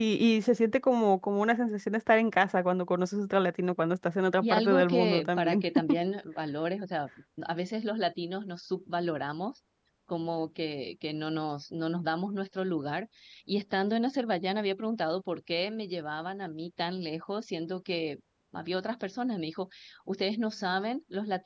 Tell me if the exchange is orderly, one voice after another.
No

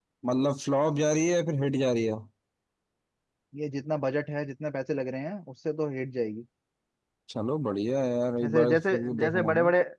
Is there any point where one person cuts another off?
Yes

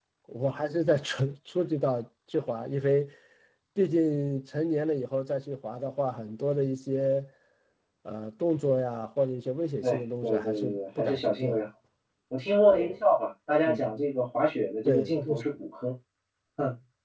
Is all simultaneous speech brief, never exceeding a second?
No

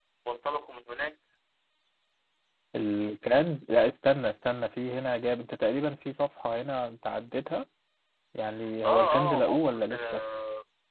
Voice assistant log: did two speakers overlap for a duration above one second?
Yes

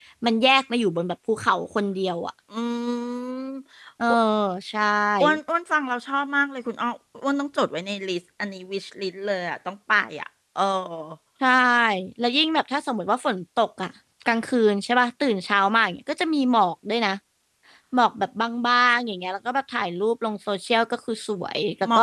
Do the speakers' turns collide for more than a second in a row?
No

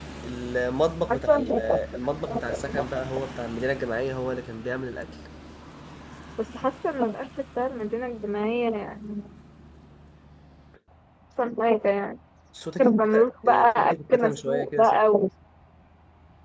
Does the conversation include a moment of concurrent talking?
Yes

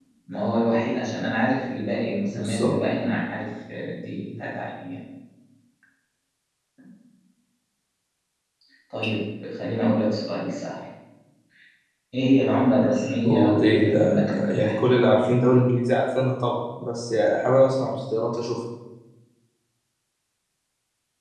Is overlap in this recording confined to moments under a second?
No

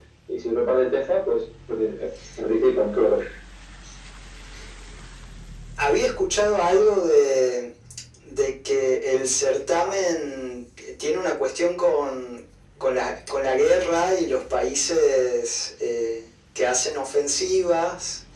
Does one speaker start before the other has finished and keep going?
No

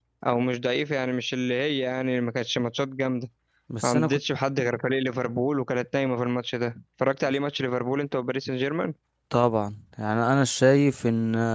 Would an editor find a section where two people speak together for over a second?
No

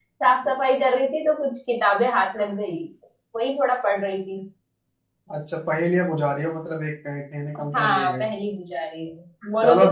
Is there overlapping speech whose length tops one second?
No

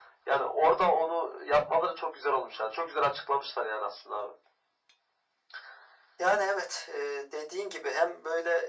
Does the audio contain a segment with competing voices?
No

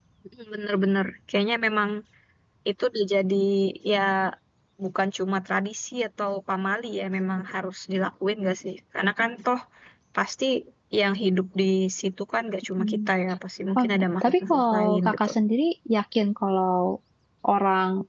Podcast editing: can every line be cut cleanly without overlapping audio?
No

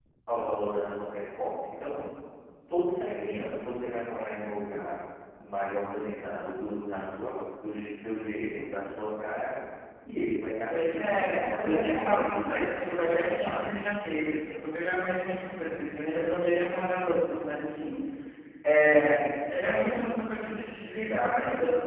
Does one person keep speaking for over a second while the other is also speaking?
Yes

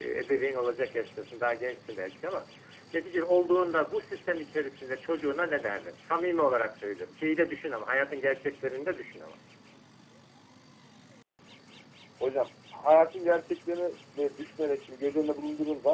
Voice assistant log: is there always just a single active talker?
Yes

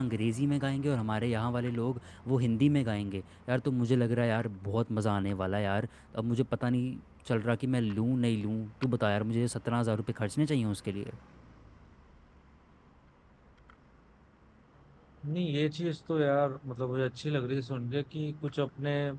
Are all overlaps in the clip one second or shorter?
Yes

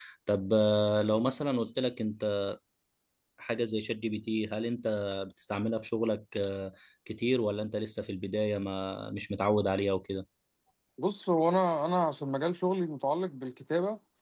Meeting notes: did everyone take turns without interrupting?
Yes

